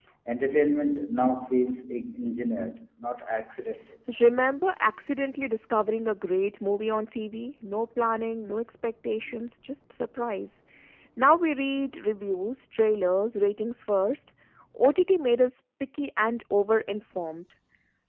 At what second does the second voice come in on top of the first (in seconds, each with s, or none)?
none